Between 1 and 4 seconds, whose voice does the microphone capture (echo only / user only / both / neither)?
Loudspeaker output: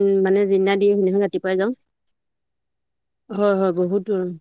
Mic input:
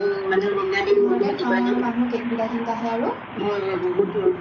both